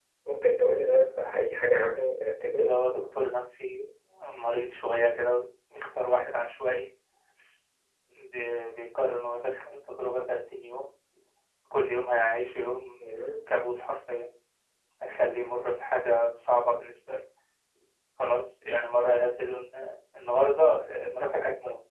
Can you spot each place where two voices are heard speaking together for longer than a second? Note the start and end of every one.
none

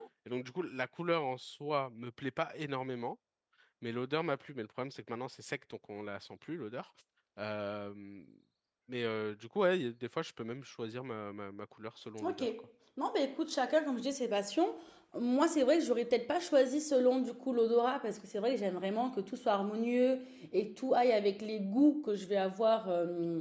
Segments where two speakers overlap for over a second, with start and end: none

